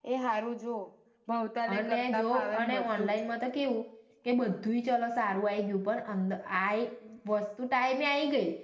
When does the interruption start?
2 s

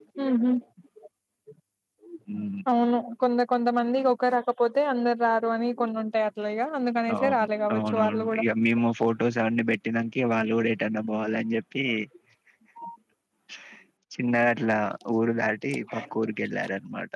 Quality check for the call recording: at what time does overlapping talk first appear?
7 s

